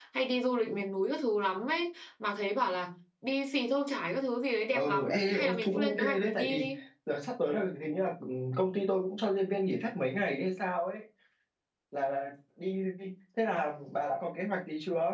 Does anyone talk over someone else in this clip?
Yes, from 4.7 s

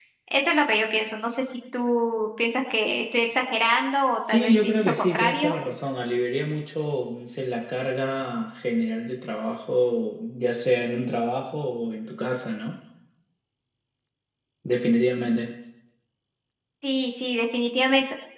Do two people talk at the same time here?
Yes, from 4.3 s

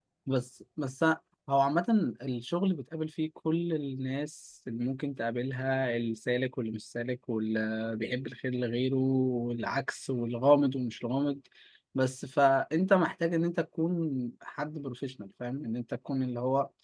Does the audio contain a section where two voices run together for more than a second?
No

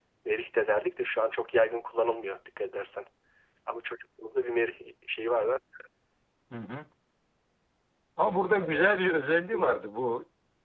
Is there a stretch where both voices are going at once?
No

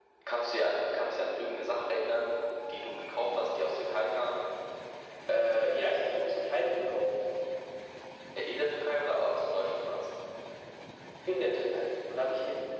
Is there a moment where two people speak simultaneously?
No

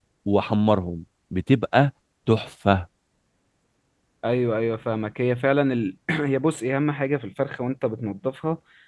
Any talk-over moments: No

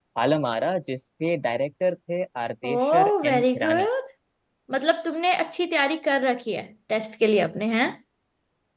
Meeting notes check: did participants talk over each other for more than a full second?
Yes, from 2.6 s

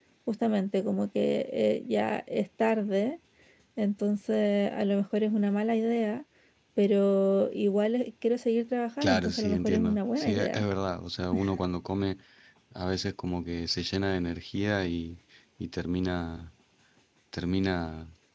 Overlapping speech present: Yes, from 9.0 s

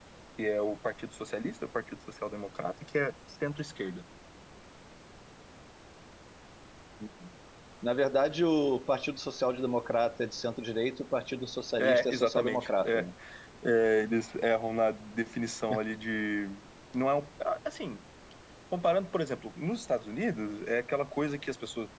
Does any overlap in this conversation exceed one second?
Yes, from 11.8 s

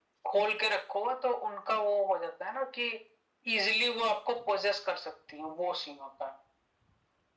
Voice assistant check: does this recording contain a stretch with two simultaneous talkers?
No

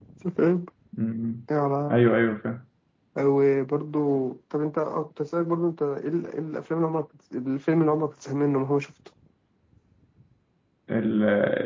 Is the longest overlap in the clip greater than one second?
No

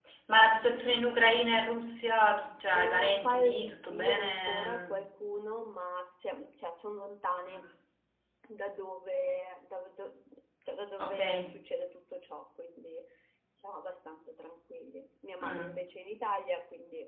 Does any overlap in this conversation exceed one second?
Yes, from 2.7 s

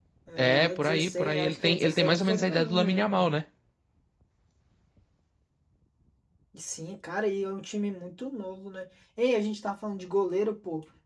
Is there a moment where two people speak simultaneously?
Yes, from 0.5 s

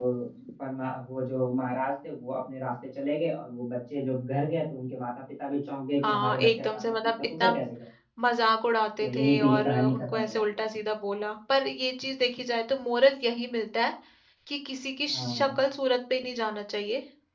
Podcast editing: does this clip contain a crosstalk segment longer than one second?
Yes, from 6.0 s

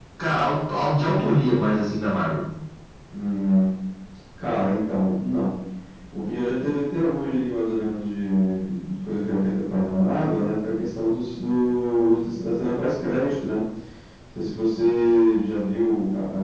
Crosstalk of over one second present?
No

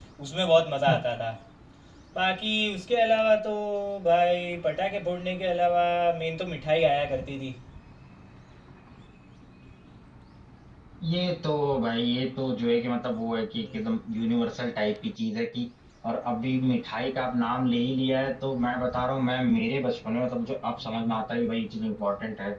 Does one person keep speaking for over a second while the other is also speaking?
No

